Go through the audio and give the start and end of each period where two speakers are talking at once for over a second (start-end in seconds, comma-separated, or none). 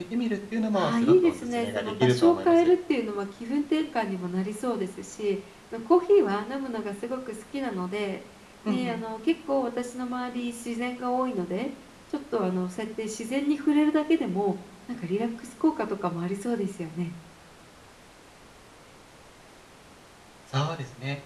0.7-2.7